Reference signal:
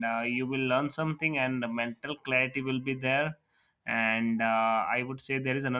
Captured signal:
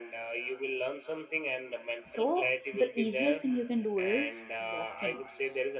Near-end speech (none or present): present